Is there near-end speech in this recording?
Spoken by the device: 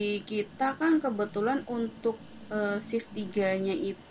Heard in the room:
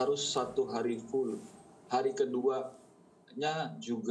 Yes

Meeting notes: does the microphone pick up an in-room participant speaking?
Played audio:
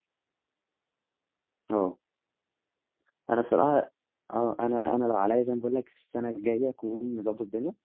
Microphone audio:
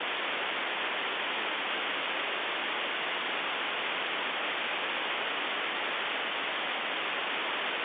No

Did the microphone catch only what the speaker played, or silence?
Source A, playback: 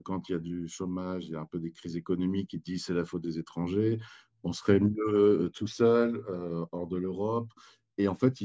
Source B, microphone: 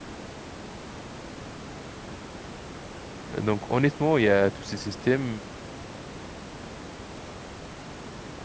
No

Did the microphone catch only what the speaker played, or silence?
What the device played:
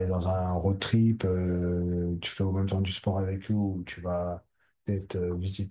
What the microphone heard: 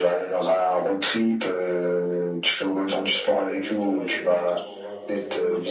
No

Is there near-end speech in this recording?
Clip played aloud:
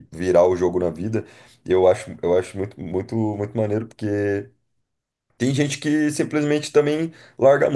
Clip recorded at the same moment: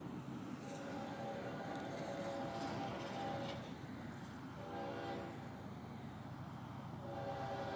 No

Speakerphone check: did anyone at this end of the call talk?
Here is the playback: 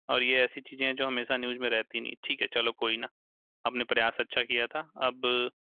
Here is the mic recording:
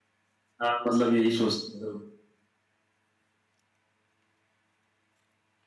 Yes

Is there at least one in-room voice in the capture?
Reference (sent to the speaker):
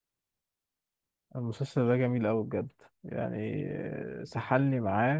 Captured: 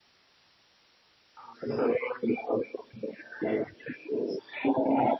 No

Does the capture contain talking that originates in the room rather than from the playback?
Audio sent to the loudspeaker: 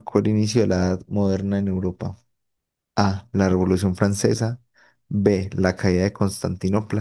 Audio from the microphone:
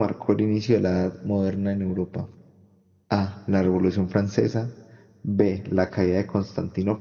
No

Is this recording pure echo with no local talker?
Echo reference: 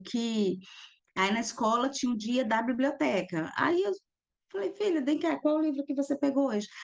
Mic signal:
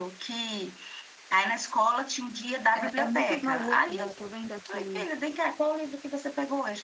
No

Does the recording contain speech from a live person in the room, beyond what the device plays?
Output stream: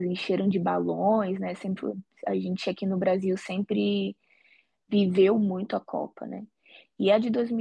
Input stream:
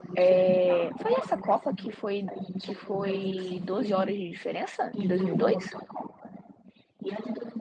Yes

